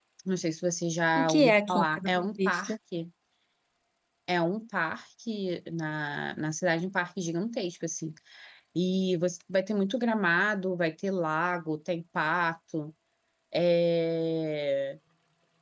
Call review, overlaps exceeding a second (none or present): present